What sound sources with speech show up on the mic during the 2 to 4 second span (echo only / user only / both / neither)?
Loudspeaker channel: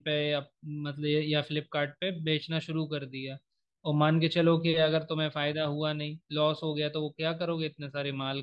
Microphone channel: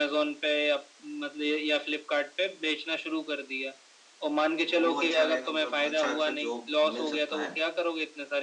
echo only